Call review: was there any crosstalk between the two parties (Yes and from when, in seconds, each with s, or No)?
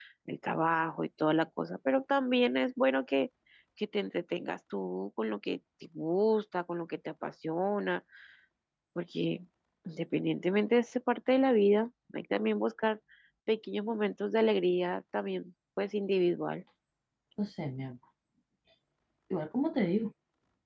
No